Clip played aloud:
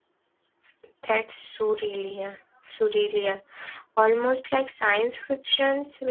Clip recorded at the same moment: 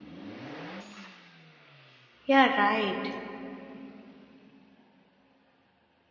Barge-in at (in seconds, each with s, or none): 2.2 s